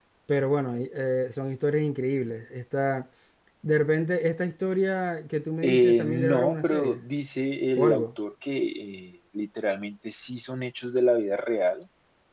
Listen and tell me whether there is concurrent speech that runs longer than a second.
Yes, from 5.6 s

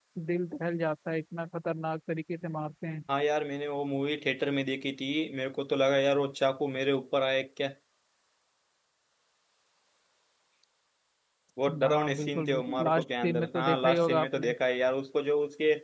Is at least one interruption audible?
Yes, from 11.8 s

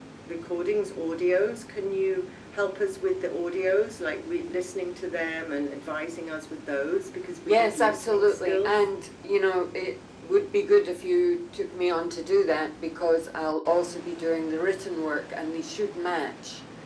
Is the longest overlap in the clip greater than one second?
Yes, from 7.5 s

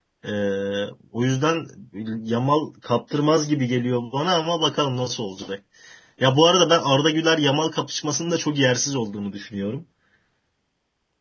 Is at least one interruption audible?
No

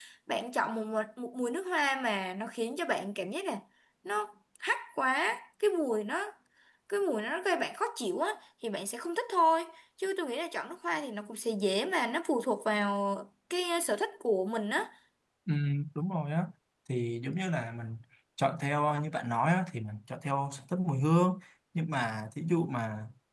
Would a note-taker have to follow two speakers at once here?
No

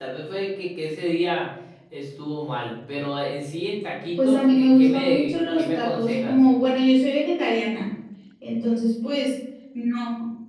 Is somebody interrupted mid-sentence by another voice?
Yes, from 4.2 s

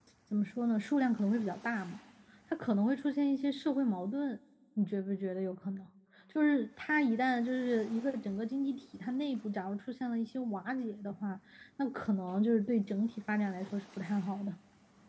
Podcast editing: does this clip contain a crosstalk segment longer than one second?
No

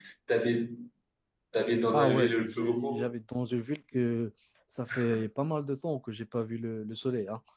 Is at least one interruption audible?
Yes, from 1.9 s

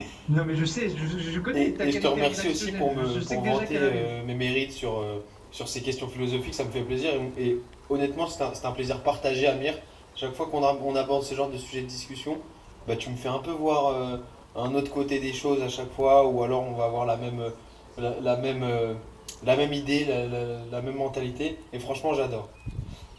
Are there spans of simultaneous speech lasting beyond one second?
Yes, from 1.5 s

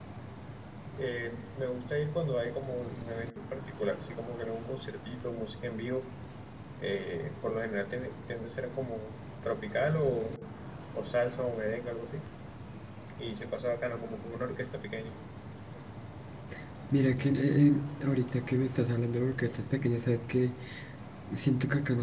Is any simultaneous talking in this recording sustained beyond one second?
No

